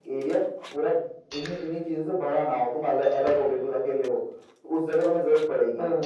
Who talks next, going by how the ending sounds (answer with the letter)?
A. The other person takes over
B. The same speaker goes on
B